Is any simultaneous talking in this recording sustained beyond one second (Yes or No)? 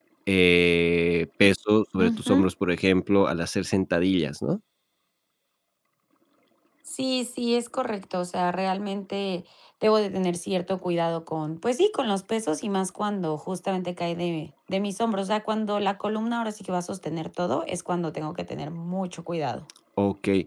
No